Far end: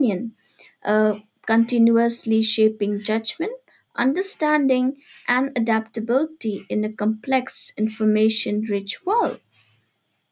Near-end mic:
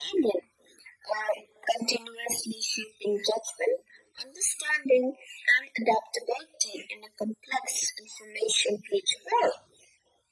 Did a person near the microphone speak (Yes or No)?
No